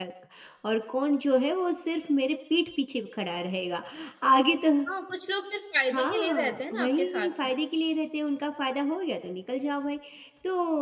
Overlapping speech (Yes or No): Yes